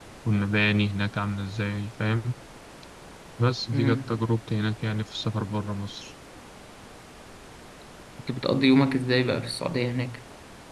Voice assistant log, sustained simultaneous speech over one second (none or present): none